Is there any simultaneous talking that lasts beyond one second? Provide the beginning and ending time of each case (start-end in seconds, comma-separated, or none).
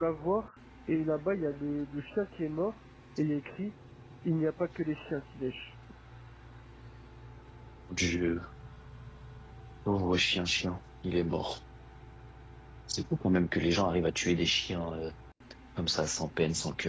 none